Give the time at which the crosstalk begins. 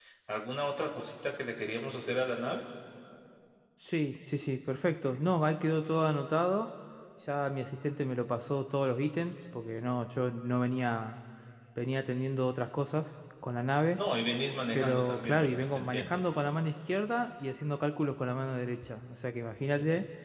14.8 s

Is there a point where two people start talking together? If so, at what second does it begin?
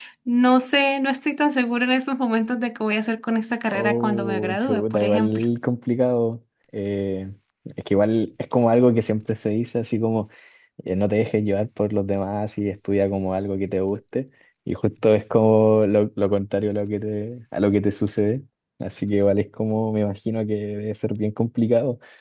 3.7 s

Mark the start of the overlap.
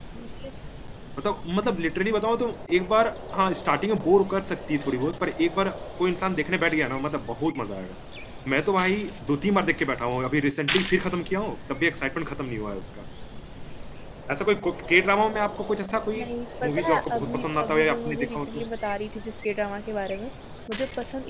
16.6 s

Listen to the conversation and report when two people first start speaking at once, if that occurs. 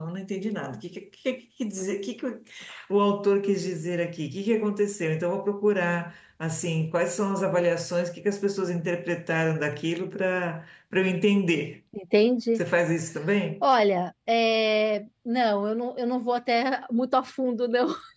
none

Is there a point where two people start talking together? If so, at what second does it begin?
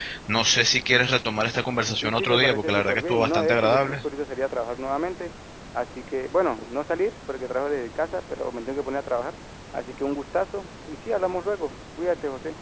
2.0 s

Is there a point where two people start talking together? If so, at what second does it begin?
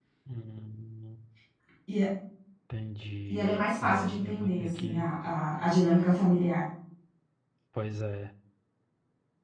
3.3 s

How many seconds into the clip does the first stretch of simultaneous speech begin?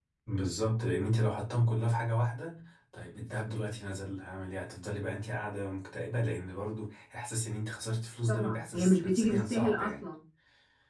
8.3 s

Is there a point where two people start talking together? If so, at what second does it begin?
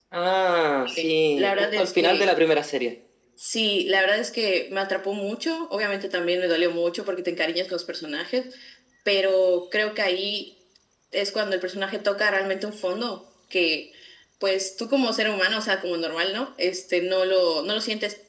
0.9 s

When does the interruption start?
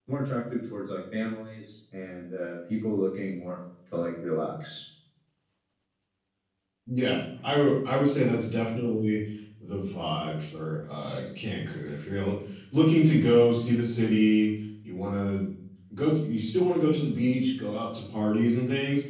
none

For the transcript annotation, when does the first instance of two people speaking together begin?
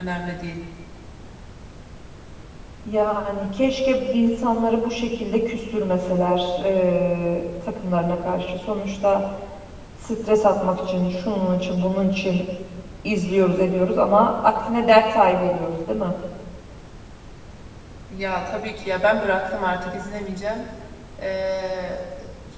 none

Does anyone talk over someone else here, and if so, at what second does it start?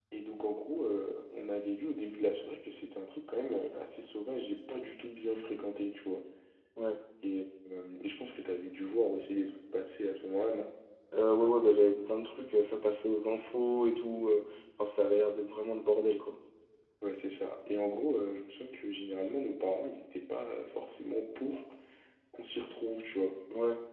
none

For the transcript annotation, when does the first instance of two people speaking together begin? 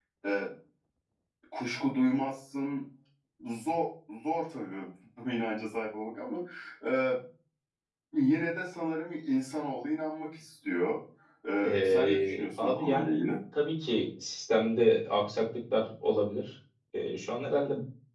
11.6 s

